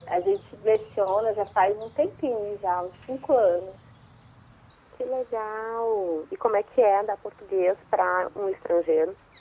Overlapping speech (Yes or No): No